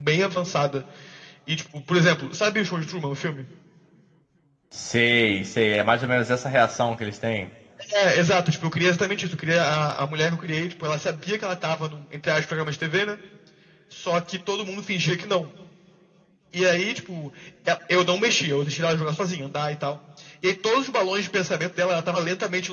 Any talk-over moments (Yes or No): No